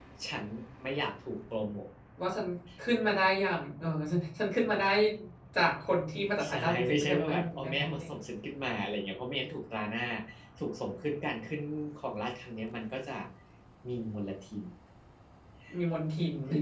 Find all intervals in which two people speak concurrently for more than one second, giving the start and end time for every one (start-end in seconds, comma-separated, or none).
6.5-8.1